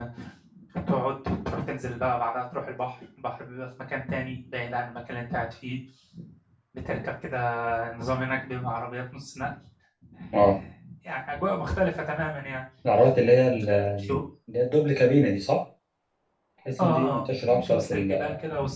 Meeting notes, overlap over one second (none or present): present